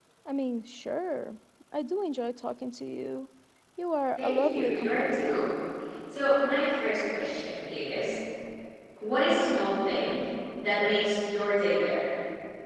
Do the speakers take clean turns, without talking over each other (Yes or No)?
No